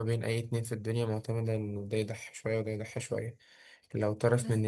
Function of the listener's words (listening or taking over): listening